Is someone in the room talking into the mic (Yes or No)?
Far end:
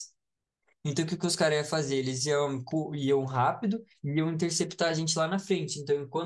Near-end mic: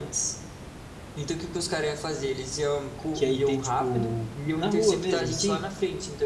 Yes